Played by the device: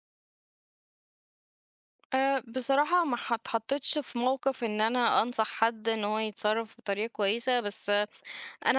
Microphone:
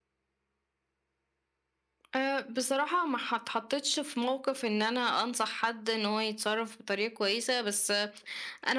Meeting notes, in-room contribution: none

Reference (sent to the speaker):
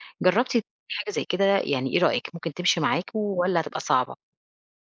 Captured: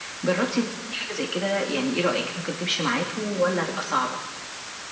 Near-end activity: none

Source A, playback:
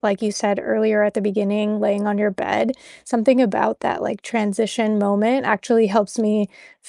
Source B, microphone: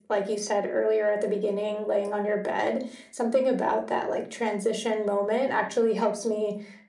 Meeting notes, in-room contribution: none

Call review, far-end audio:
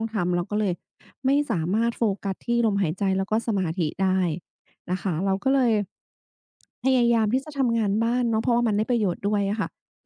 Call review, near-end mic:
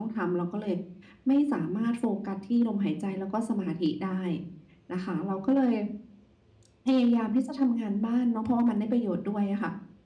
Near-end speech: none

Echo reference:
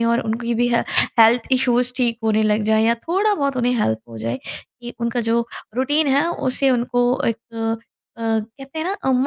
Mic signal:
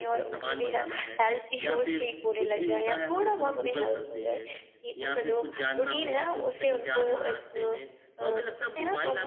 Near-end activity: present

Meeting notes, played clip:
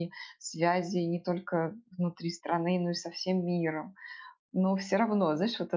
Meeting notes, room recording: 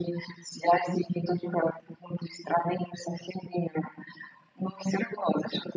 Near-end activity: none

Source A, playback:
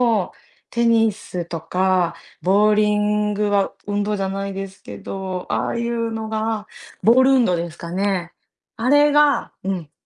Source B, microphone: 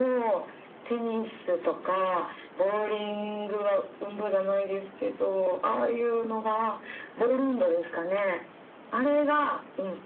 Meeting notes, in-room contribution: none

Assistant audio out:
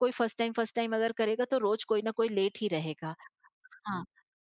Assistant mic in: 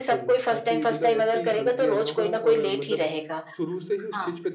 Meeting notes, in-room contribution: present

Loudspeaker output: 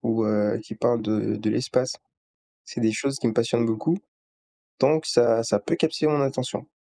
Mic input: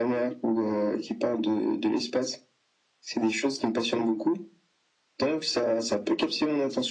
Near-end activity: none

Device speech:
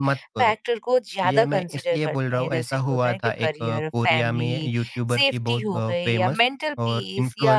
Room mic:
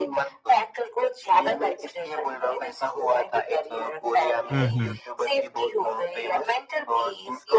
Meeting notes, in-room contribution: present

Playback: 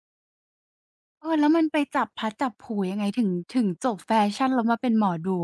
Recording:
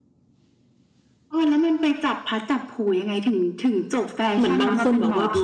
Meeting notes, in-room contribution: present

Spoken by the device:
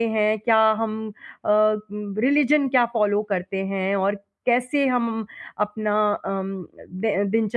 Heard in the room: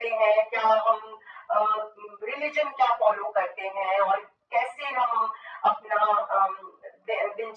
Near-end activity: none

